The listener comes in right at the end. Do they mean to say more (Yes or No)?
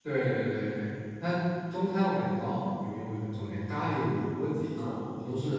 No